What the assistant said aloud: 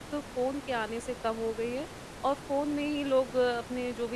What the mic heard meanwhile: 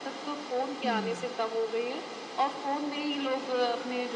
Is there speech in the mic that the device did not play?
Yes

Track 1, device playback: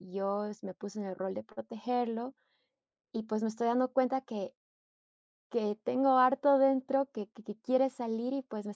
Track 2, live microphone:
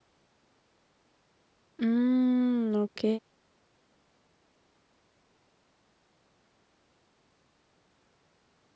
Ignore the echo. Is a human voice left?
Yes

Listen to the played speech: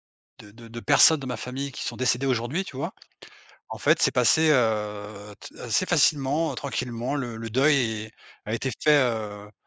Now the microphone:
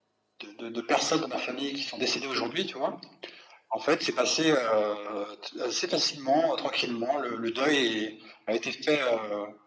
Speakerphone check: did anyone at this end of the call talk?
No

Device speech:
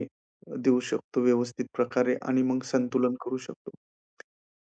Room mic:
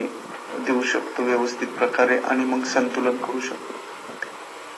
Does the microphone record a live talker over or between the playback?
No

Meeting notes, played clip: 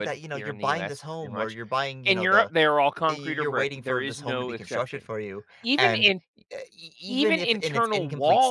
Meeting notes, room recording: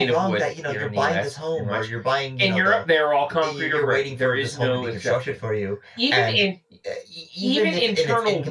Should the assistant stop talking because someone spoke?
No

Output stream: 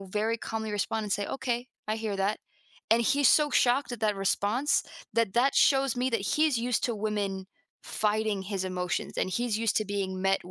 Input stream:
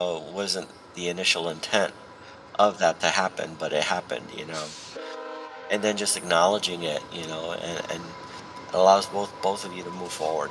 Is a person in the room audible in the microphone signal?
Yes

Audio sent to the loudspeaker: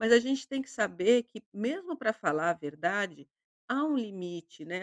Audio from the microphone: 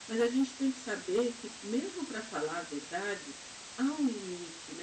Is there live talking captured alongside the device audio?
No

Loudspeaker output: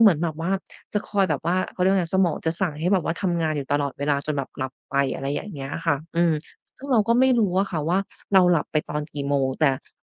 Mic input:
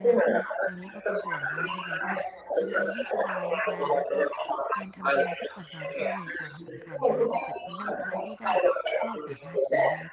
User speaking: Yes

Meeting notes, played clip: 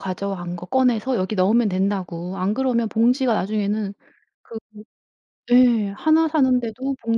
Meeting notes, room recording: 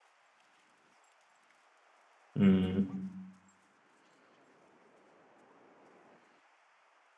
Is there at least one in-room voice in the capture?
Yes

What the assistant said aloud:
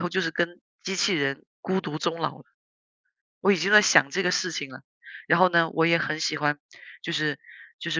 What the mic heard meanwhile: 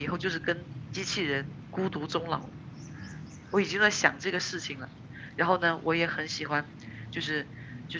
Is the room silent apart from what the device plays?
Yes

